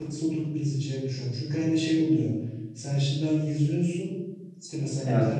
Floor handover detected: No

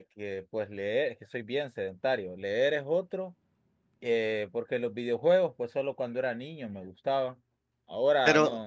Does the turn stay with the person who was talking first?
Yes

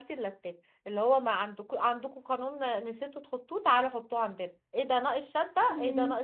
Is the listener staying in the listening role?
Yes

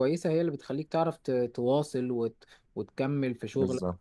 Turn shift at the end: No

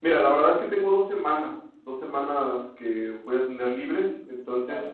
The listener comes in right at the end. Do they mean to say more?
No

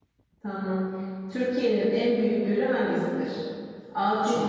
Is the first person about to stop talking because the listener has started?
No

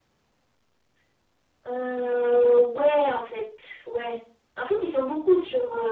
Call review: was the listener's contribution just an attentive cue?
Yes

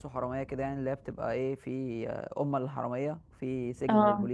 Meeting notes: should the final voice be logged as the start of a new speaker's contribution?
No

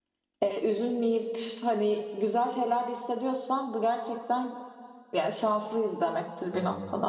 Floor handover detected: Yes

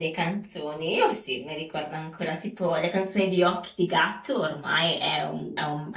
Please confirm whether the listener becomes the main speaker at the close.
No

